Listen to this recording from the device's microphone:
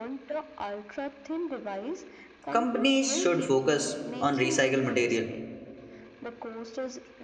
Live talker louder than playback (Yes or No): Yes